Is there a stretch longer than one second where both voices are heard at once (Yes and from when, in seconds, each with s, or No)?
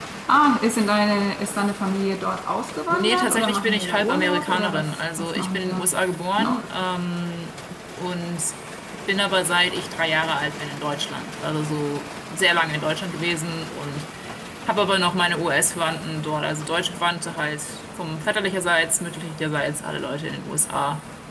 Yes, from 2.9 s